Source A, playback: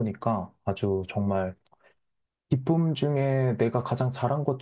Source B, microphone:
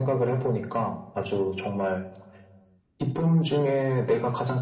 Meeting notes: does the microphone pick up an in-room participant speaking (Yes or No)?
No